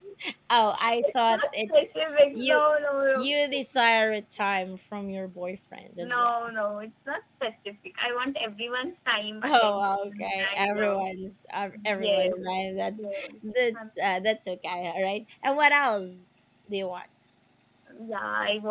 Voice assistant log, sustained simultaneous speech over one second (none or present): present